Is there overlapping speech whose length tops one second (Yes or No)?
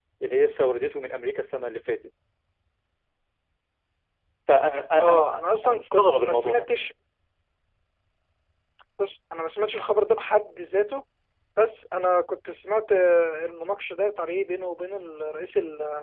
Yes